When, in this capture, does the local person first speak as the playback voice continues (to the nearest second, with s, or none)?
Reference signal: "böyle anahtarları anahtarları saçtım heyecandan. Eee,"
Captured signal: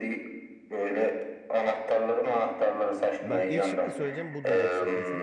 3 s